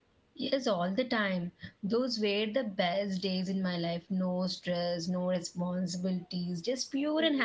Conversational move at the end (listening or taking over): taking over